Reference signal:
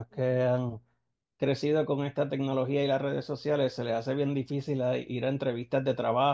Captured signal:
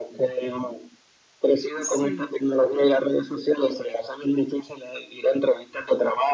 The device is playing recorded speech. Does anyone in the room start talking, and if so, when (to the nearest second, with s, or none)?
2 s